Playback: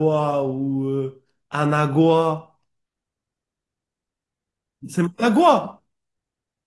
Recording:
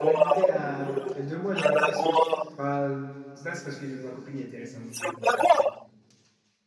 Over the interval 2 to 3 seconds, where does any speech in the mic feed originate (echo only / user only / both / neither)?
both